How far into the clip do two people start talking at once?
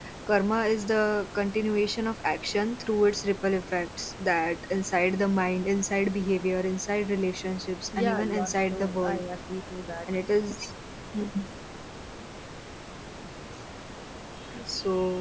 7.9 s

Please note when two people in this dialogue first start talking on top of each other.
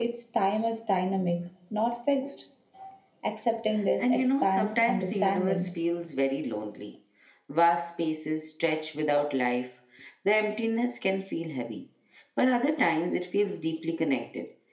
4.0 s

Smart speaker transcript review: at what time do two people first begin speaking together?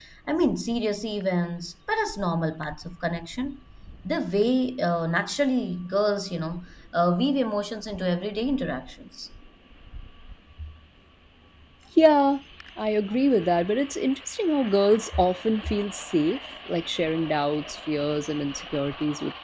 none

